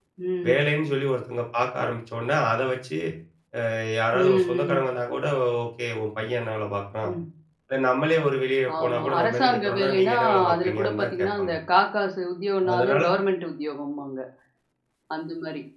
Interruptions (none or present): present